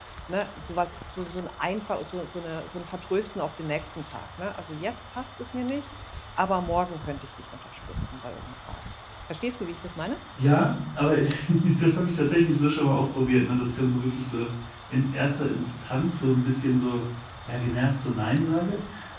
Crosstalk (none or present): none